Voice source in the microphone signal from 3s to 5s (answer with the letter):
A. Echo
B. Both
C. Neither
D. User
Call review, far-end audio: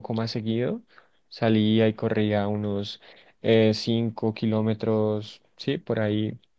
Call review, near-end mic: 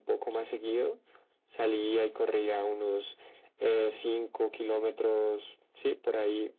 A